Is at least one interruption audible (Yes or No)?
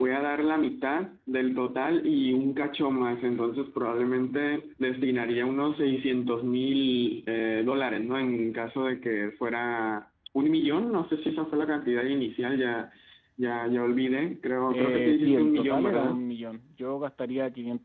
Yes